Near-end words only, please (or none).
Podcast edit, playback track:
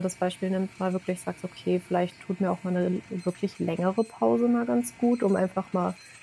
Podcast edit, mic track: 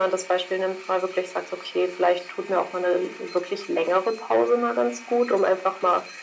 none